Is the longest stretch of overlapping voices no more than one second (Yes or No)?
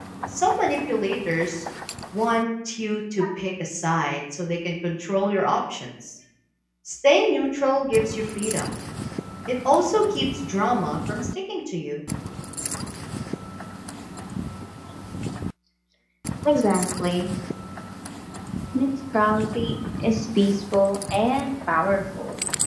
Yes